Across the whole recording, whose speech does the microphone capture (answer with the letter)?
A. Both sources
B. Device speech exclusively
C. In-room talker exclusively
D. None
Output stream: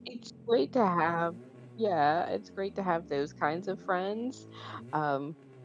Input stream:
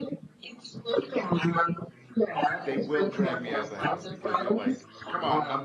A